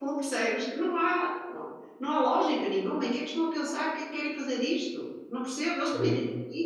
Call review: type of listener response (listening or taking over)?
listening